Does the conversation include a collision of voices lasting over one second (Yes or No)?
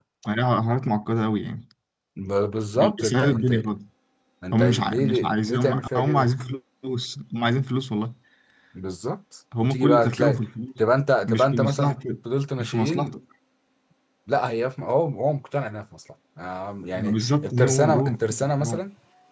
Yes